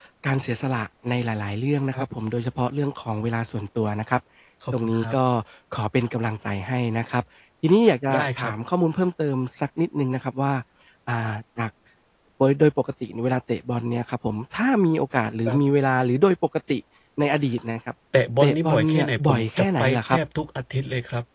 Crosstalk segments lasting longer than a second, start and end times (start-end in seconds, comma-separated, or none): 18.4-20.2